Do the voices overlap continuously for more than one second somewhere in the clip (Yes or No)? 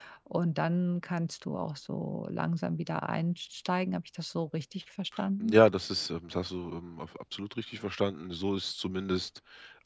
No